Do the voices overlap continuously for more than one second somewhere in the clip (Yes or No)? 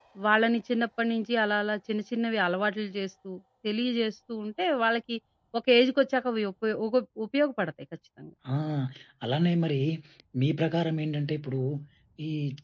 No